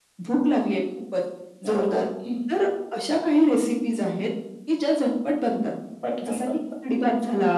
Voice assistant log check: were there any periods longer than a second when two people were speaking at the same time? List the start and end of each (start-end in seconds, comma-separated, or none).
none